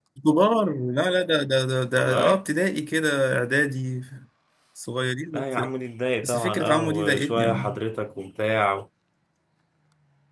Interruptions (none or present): present